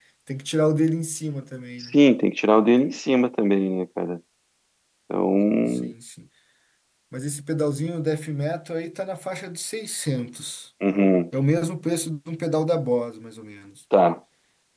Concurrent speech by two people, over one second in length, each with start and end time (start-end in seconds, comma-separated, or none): none